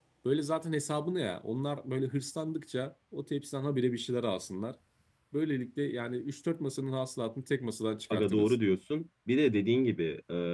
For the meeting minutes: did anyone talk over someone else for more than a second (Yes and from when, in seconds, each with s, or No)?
No